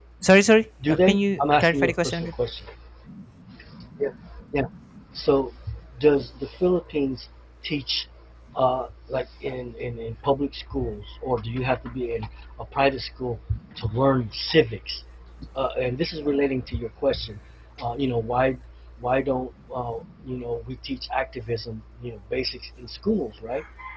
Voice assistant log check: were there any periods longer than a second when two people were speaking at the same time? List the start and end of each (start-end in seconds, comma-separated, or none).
0.9-2.3